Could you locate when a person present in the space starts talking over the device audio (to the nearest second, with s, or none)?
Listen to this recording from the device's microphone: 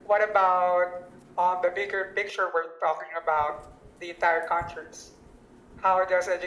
none